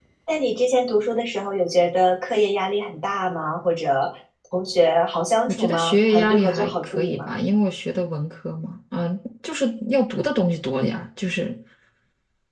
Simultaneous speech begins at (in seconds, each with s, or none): 5.5 s